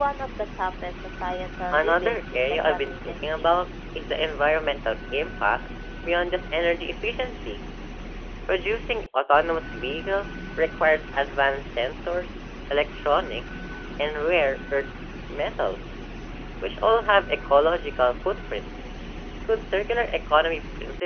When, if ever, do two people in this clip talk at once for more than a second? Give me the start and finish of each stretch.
1.7-3.7

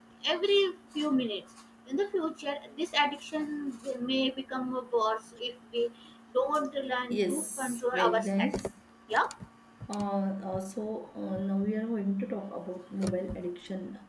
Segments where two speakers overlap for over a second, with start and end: 7.1-8.6

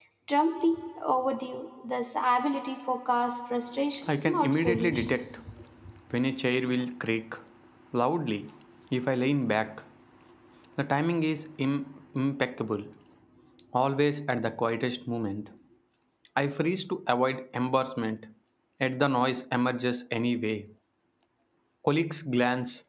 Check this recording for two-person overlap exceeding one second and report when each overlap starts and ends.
4.1-5.3

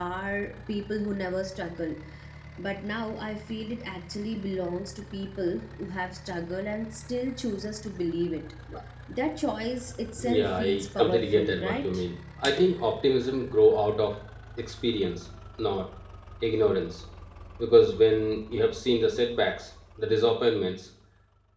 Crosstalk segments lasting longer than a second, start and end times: 10.2-12.0

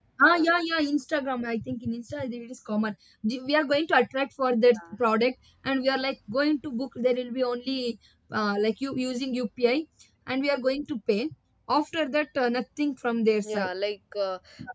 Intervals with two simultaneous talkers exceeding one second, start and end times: none

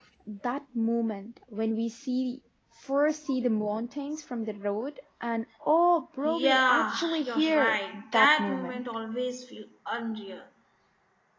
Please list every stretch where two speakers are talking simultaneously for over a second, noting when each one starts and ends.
6.2-8.8

